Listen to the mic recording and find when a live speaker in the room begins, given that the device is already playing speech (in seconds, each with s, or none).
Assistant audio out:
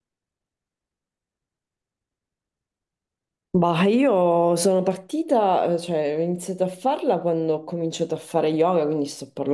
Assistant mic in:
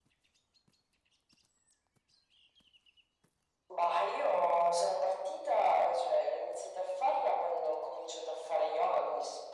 none